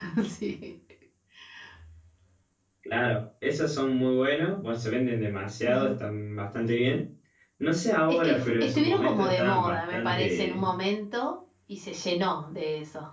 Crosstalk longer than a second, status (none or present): present